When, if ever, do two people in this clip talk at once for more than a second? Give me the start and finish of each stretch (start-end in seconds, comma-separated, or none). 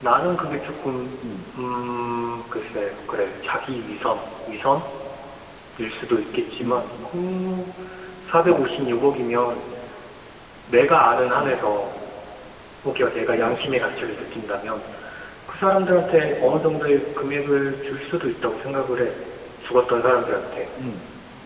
none